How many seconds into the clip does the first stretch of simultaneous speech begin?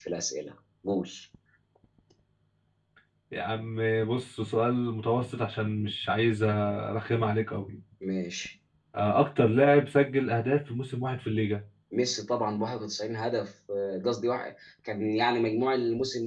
none

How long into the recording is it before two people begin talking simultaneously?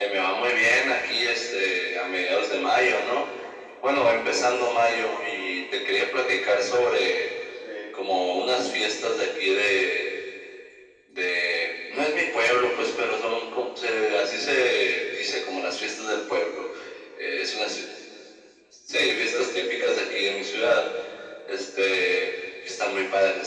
18.9 s

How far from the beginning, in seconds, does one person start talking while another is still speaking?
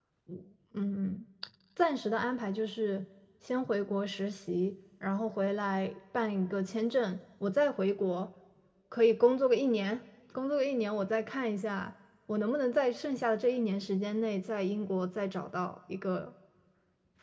none

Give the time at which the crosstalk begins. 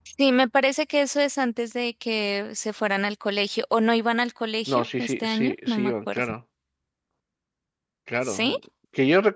4.7 s

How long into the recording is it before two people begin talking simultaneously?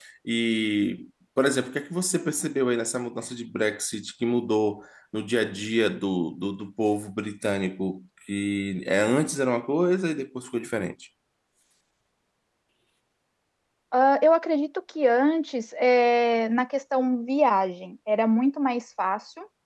none

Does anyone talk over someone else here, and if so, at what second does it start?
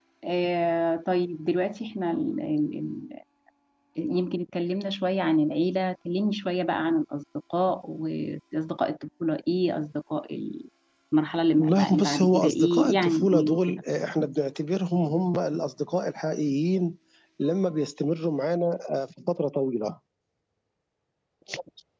11.6 s

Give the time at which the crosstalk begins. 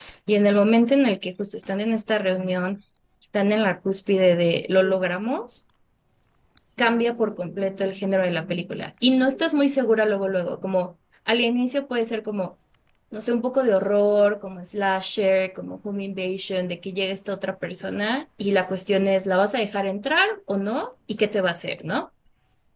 none

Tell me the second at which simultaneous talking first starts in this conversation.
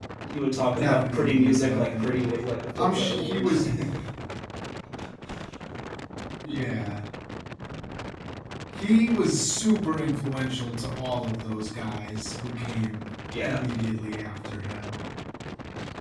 0.7 s

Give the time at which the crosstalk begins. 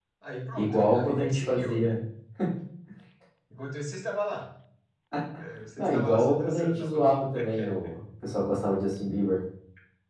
0.6 s

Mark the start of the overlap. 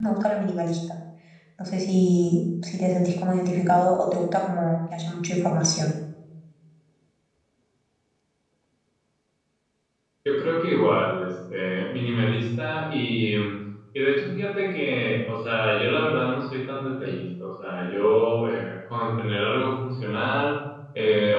none

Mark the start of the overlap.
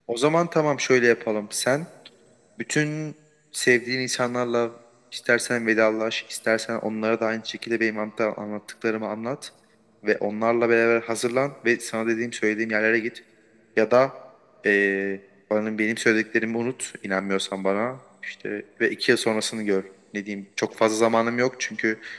none

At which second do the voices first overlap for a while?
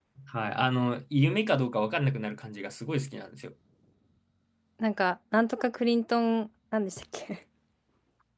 none

